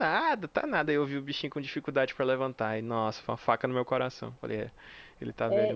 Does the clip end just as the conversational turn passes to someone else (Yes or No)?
Yes